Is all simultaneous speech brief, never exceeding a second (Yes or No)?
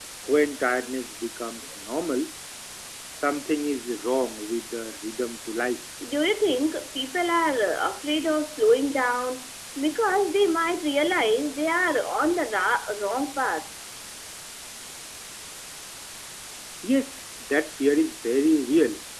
Yes